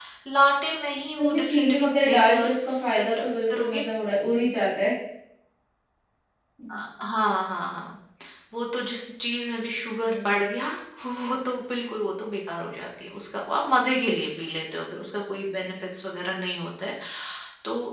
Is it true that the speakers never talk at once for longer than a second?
No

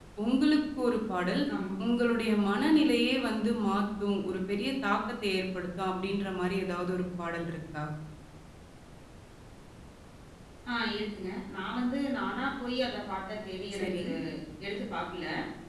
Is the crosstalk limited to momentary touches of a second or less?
Yes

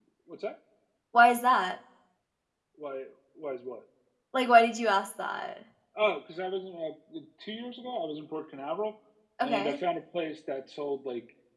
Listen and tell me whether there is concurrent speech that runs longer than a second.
No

